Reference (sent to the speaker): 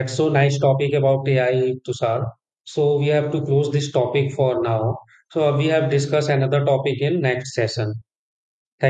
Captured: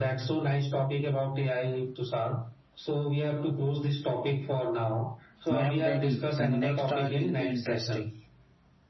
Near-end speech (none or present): present